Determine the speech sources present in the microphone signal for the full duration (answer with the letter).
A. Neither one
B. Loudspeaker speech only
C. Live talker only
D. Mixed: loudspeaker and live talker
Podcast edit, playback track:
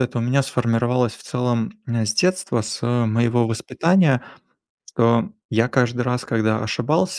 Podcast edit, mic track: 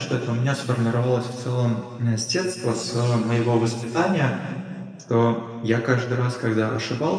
B